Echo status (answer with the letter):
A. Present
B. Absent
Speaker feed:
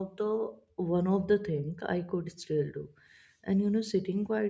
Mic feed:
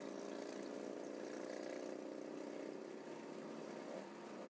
B